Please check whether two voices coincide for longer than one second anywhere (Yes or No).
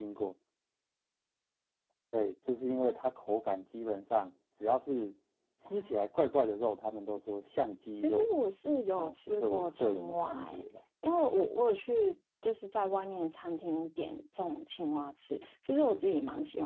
Yes